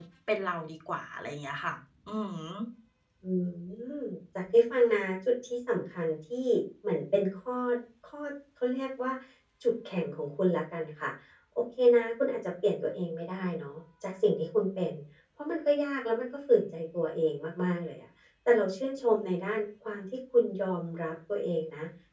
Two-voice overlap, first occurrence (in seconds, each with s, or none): none